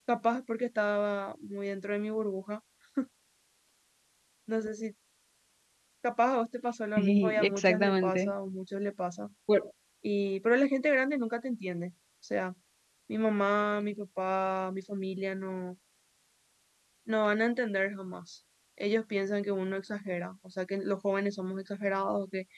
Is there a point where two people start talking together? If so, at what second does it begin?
7 s

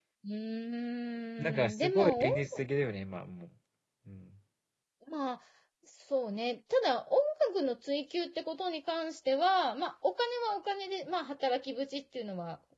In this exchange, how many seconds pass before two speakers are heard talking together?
1 s

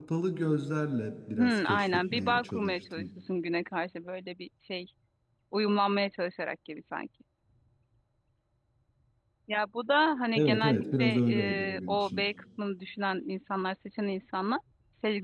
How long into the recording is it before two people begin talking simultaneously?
1 s

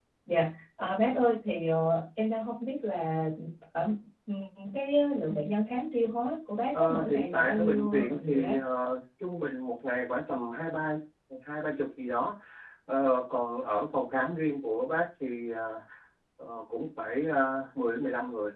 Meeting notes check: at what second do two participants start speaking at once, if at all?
7 s

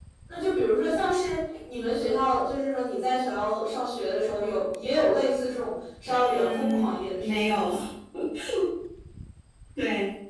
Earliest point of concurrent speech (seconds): 6 s

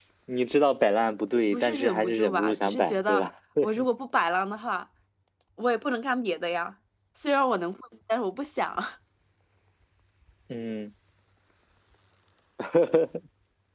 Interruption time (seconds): 2 s

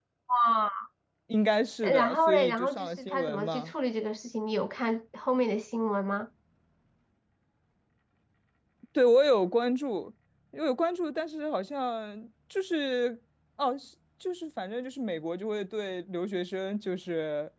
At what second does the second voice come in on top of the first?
2 s

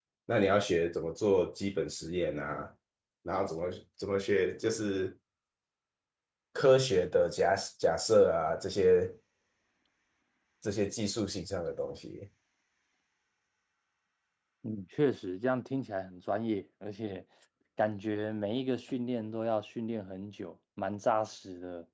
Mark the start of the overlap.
none

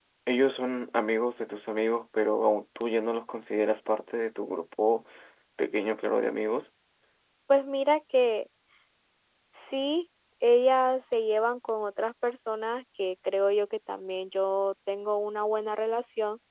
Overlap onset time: none

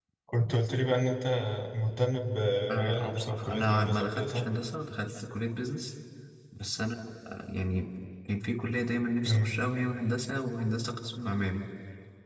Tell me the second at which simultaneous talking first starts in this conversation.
3 s

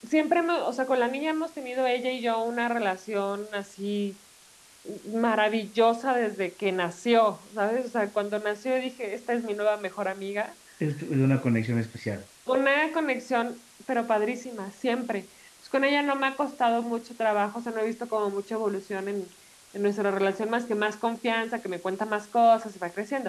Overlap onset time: none

